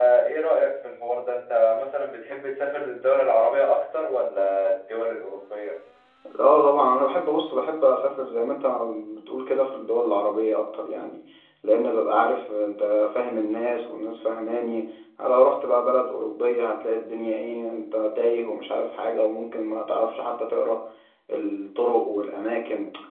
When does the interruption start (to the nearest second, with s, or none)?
none